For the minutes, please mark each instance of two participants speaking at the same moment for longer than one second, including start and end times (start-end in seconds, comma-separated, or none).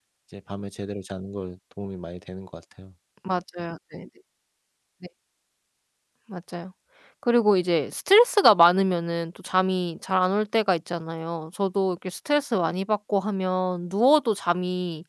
none